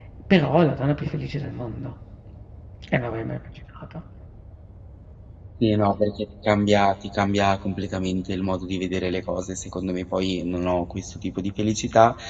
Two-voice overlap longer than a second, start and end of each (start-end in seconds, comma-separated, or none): none